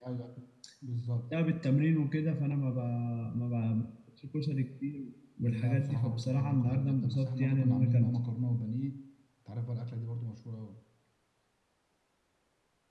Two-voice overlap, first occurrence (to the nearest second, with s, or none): 5 s